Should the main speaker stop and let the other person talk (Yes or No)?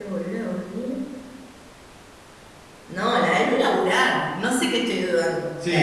Yes